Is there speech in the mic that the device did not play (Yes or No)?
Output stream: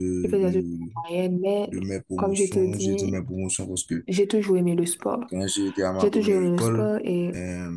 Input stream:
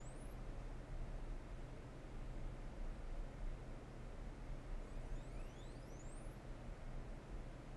No